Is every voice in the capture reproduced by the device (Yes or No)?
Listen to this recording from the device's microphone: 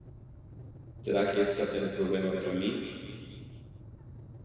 No